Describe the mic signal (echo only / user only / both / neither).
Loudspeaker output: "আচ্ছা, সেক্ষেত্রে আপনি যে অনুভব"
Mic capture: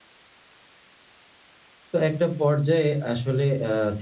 user only